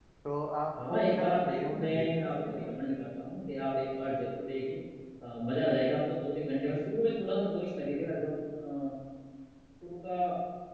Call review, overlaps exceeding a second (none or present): present